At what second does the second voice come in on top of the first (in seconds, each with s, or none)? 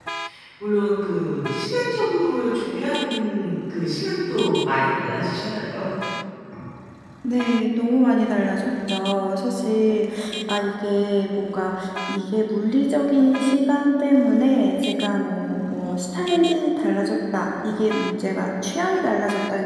none